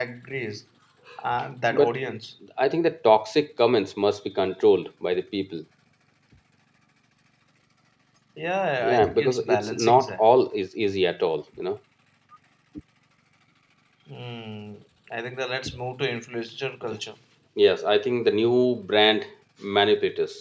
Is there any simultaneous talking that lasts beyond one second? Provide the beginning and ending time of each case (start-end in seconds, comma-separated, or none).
8.8-10.2